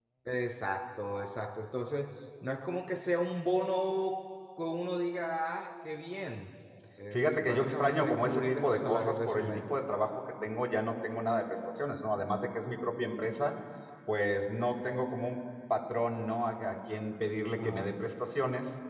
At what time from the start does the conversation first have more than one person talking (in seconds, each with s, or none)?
7.1 s